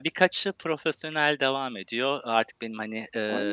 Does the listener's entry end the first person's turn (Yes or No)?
No